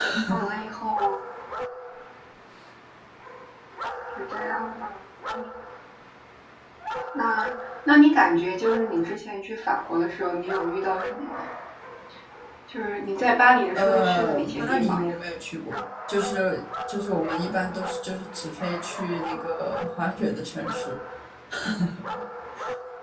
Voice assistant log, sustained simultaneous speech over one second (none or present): present